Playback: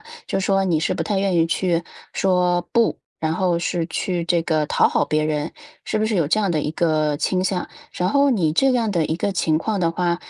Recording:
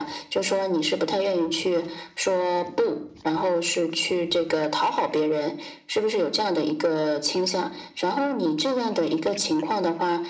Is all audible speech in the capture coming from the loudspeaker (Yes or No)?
Yes